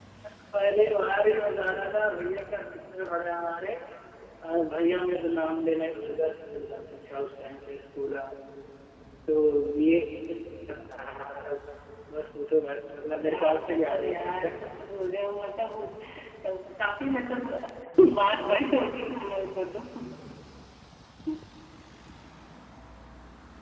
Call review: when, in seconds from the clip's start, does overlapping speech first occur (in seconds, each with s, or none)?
13.2 s